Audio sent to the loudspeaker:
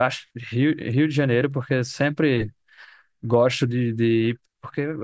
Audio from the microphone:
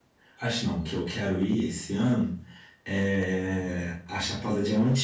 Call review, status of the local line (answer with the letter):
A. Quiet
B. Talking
B